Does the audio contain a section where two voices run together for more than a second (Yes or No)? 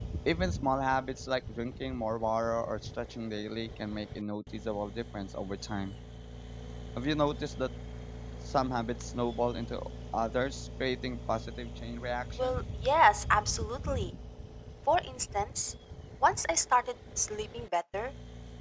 No